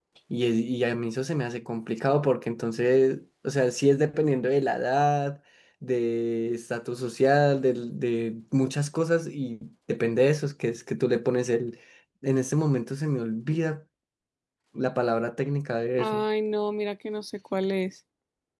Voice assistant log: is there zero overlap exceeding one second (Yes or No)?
Yes